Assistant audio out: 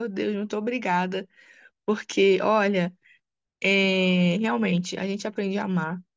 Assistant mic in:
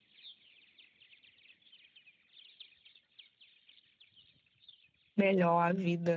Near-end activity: present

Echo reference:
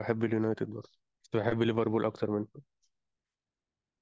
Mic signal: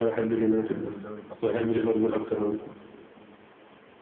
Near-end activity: present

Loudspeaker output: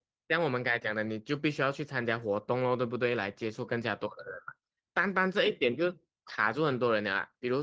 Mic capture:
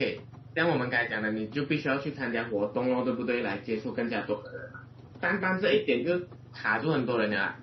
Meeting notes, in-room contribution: none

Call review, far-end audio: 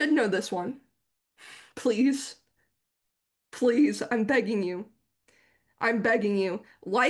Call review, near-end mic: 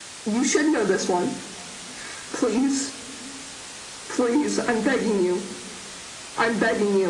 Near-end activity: none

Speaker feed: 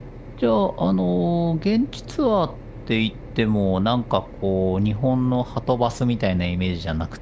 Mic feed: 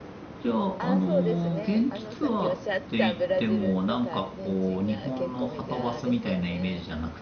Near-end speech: present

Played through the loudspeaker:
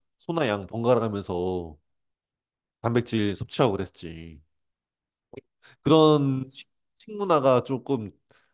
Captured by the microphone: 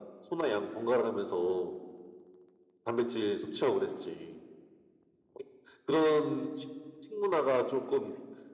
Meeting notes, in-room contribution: none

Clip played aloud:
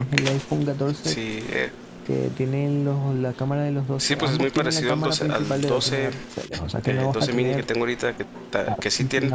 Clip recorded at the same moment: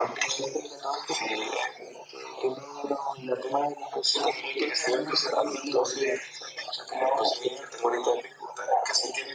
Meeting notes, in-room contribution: none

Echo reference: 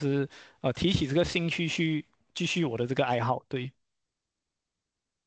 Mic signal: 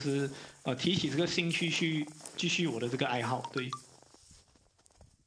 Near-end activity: none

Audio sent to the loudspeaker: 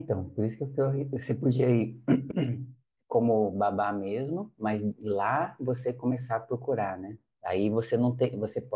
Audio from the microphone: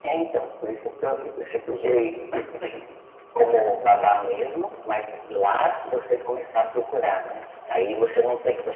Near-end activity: none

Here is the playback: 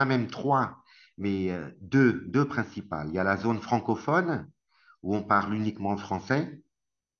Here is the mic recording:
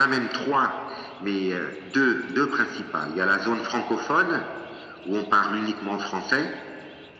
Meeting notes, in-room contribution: none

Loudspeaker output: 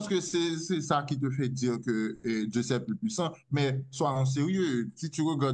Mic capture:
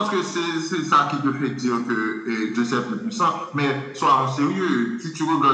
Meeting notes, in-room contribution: none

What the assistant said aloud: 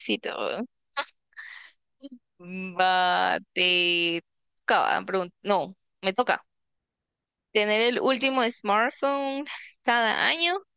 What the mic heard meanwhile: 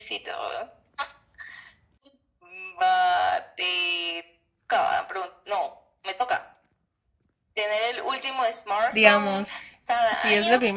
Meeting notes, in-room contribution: present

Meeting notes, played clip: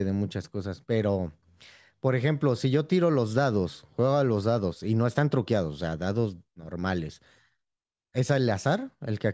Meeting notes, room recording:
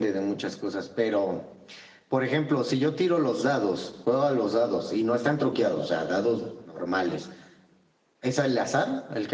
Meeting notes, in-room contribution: none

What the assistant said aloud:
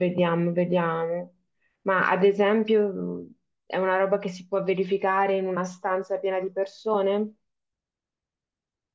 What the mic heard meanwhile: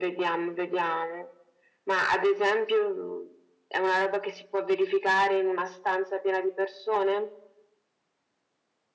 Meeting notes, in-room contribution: none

